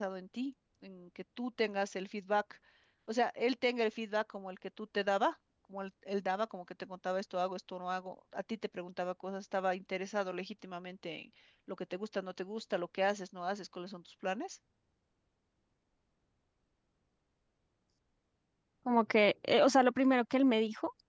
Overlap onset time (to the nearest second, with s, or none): none